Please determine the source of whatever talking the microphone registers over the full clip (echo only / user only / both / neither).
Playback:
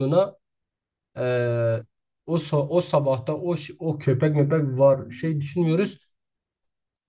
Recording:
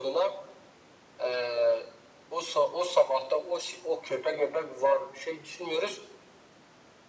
echo only